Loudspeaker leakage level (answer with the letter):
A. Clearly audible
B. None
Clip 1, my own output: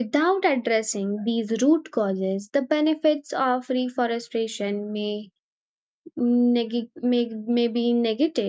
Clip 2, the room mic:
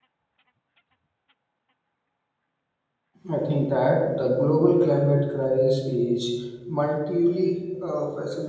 B